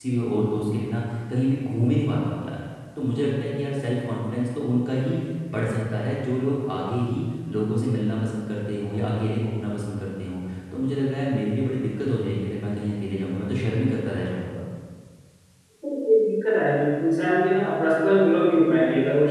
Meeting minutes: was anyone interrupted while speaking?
No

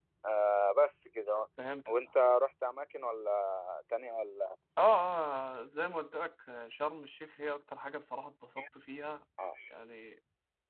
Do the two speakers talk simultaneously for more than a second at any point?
No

